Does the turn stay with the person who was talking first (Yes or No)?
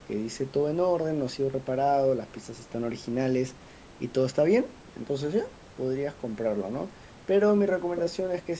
Yes